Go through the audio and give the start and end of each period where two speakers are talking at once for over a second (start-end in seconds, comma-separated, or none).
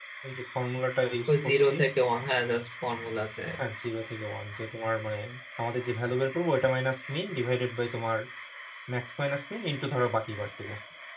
none